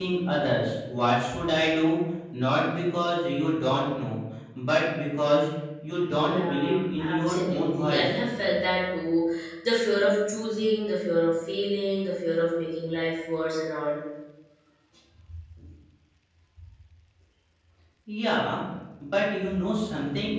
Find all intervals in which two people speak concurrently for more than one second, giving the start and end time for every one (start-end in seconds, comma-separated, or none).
6.2-8.1